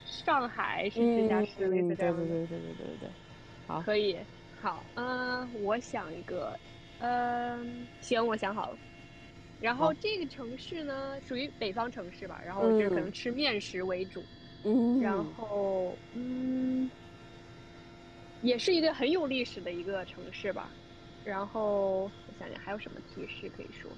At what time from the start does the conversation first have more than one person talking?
1 s

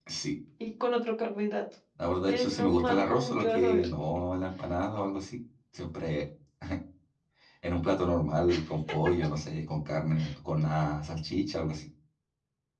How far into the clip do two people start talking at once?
2 s

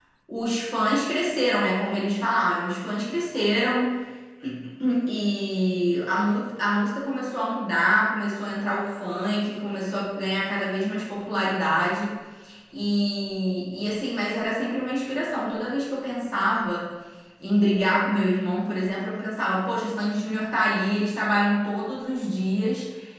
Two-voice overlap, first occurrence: none

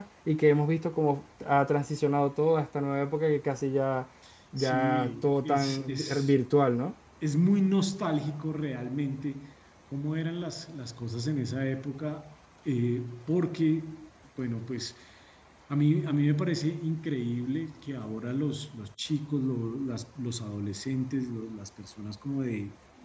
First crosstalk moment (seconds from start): 5 s

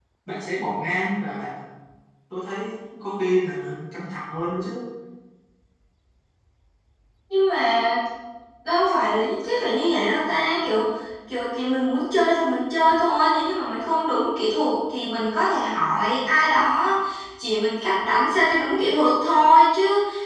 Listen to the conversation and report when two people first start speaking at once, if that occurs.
none

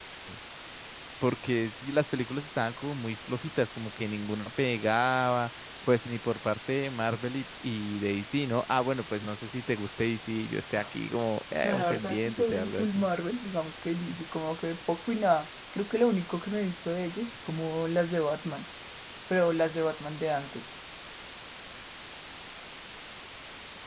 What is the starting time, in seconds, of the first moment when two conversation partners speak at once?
12 s

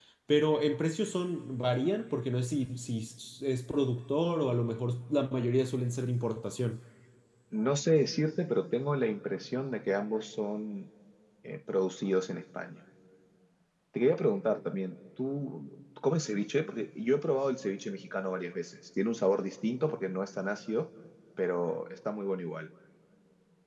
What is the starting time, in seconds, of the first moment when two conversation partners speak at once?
none

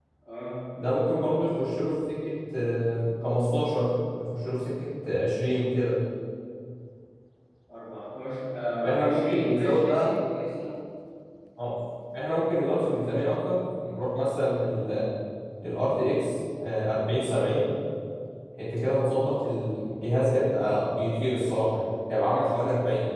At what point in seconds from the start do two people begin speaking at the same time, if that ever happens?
9 s

